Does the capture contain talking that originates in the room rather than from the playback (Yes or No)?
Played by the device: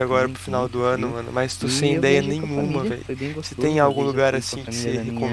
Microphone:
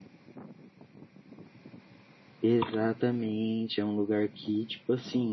Yes